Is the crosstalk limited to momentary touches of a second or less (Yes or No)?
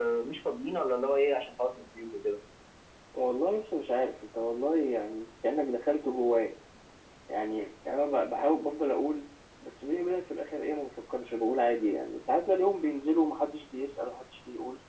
Yes